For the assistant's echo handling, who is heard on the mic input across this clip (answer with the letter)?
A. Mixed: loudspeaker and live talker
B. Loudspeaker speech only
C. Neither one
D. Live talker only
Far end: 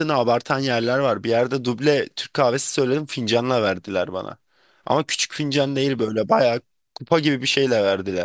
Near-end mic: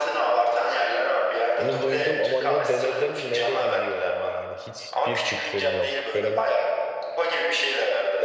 A